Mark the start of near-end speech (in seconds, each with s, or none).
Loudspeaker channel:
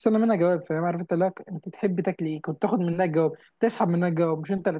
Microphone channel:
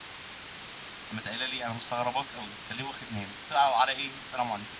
1.1 s